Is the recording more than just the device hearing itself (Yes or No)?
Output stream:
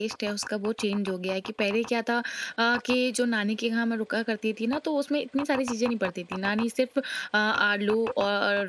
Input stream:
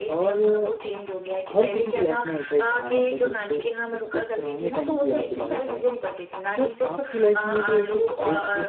Yes